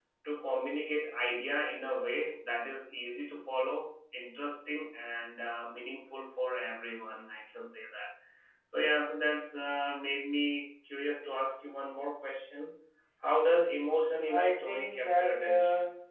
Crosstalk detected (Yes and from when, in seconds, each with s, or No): Yes, from 14.3 s